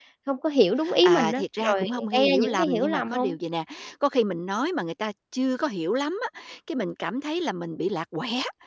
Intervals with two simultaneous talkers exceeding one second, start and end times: 1.0-3.4

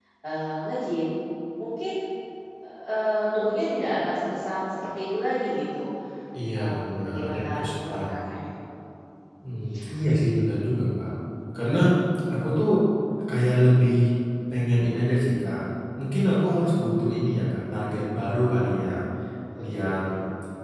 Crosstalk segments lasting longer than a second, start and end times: 6.5-8.0

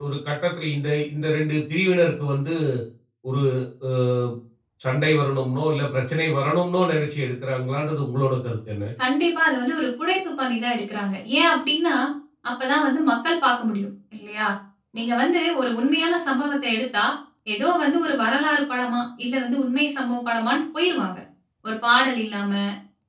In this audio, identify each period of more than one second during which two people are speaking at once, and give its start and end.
none

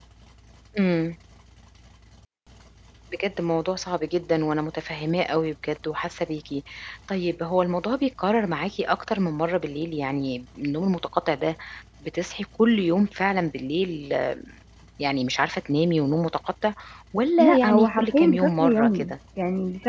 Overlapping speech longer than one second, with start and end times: 17.4-19.1

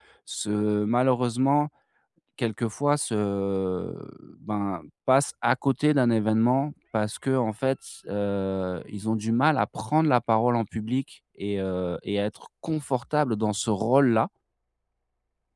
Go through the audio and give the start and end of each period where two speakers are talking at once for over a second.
none

